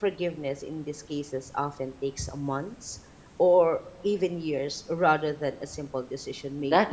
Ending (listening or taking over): taking over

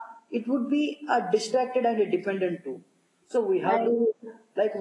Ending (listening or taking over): listening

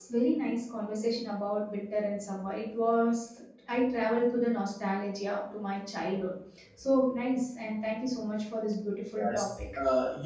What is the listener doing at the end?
taking over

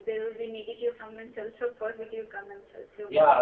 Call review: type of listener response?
taking over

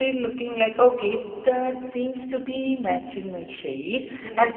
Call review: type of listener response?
listening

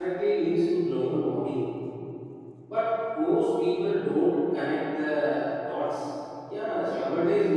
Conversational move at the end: listening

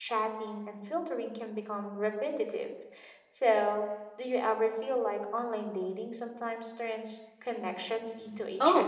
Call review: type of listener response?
taking over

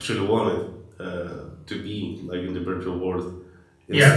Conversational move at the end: taking over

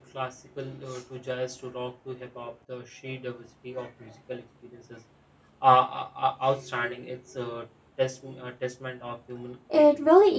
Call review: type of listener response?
taking over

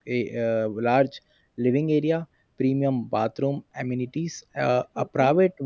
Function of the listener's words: listening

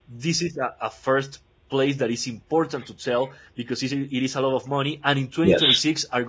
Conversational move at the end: listening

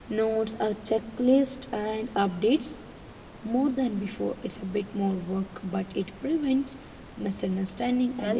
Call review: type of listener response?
taking over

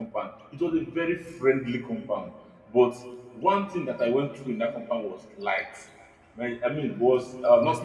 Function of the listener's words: listening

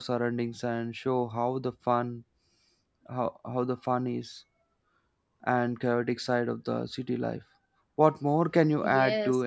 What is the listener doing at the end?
taking over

